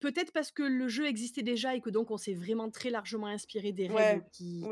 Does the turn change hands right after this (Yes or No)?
Yes